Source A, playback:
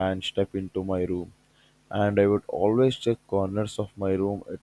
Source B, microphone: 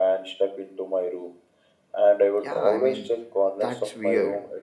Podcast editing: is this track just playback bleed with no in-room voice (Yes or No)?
No